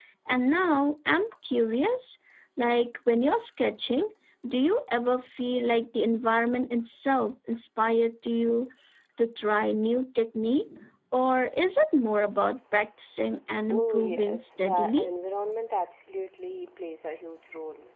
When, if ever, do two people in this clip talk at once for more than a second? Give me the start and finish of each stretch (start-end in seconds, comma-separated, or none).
13.7-15.1